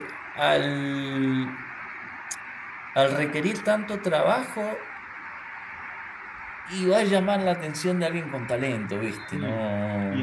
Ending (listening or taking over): taking over